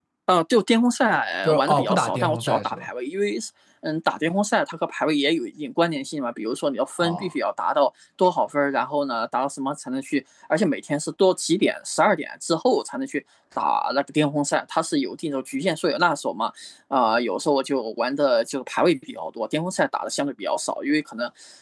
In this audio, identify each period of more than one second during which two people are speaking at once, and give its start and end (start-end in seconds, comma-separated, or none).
1.4-2.9